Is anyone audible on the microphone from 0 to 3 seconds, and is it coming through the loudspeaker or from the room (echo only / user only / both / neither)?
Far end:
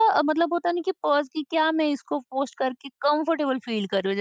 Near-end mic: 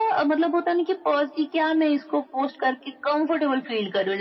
echo only